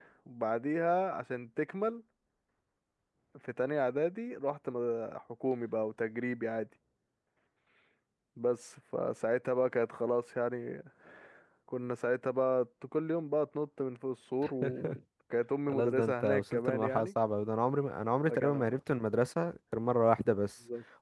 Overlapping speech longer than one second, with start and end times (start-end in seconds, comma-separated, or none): 15.7-17.1